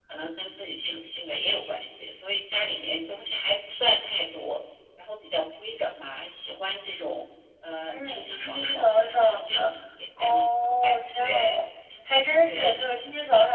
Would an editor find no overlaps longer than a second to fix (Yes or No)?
No